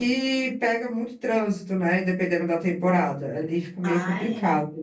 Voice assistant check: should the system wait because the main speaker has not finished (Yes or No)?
No